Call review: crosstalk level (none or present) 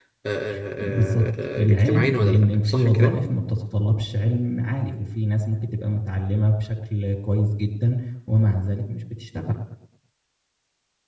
present